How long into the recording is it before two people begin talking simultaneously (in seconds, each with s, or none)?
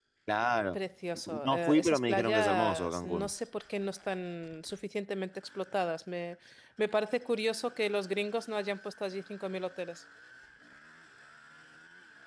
1.4 s